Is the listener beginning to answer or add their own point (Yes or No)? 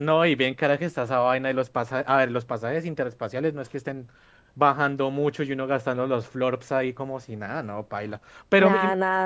No